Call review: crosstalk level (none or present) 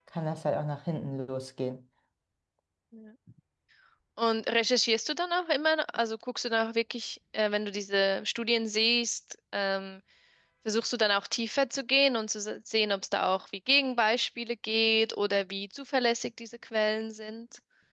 none